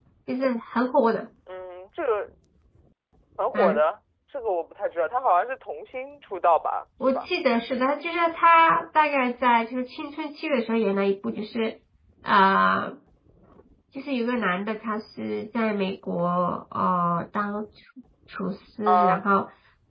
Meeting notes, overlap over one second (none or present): none